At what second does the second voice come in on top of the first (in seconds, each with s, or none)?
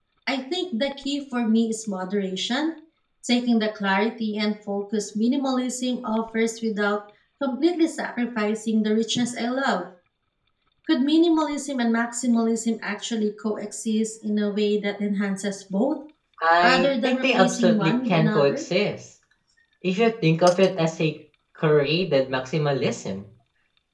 16.6 s